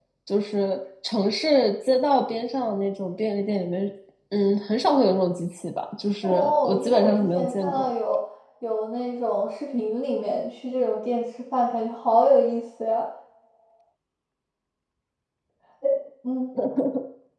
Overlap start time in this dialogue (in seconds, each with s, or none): 6.2 s